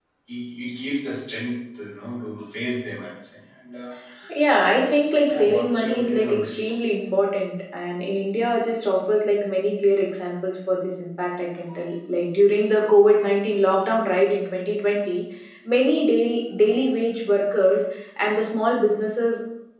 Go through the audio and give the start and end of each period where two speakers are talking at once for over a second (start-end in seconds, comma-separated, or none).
5.2-6.7